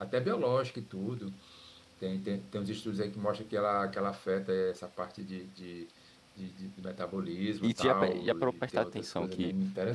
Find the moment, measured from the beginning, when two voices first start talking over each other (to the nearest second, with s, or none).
8 s